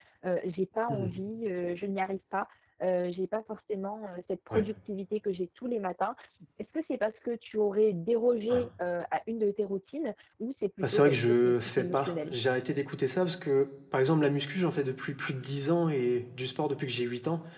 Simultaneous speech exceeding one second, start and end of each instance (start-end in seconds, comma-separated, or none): 10.8-12.3